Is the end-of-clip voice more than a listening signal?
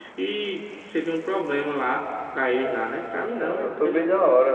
Yes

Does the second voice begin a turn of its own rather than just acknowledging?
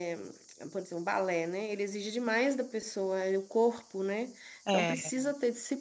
No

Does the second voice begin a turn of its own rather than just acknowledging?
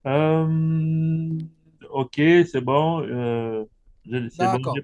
Yes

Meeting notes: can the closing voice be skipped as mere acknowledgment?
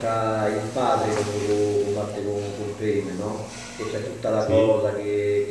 Yes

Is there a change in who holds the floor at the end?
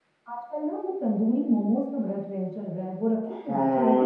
Yes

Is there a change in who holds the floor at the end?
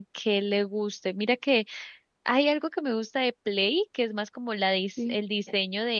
No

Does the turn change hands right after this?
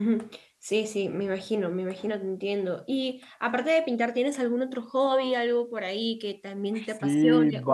Yes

